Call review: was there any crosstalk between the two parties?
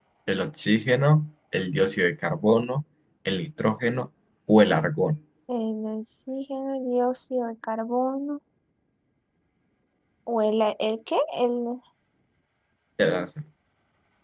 No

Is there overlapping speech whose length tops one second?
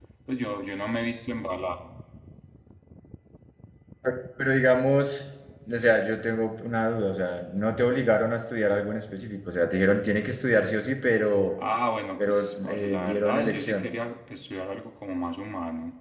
Yes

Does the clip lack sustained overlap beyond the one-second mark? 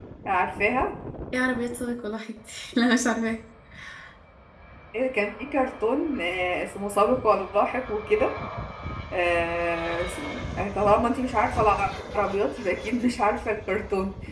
Yes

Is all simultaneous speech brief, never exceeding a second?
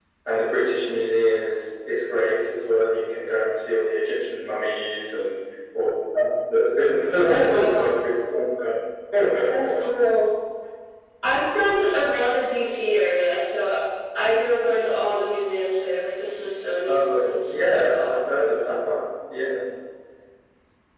No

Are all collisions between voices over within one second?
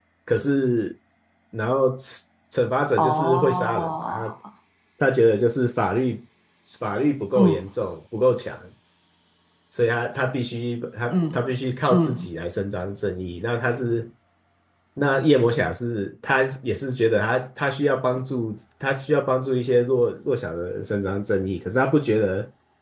No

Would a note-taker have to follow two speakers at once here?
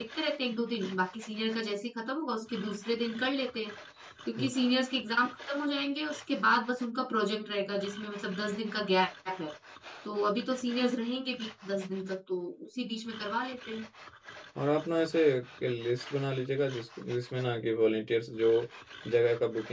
No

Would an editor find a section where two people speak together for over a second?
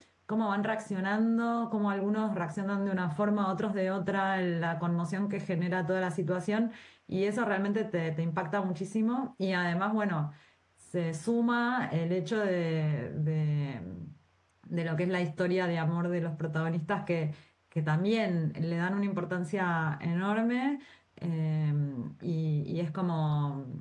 No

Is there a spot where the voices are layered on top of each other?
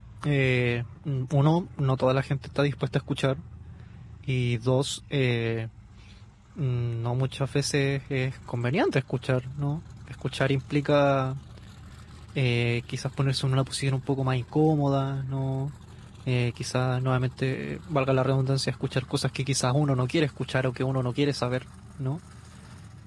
No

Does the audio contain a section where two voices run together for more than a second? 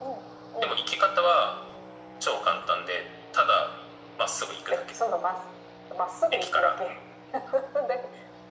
No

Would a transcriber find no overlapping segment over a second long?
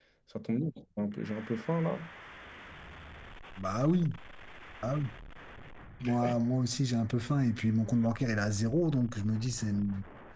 Yes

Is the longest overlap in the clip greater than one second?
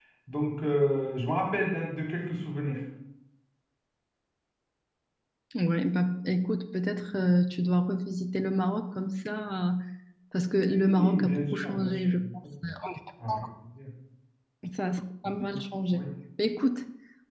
Yes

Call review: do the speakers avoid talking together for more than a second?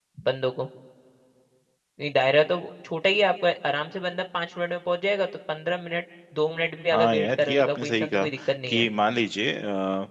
No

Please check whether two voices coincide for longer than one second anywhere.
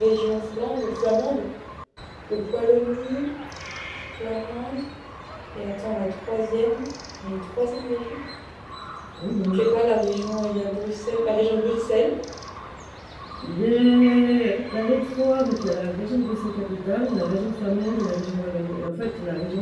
No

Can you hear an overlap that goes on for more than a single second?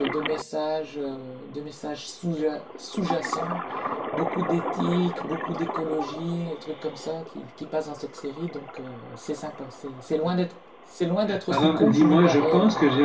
Yes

